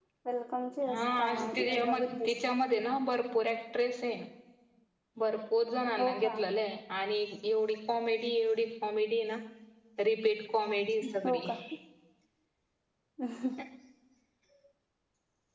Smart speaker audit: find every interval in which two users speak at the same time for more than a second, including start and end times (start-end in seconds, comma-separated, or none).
0.9-2.3